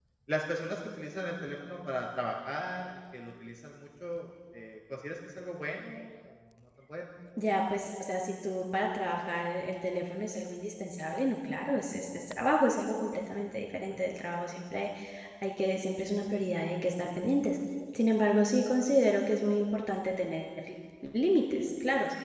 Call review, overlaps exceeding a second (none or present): none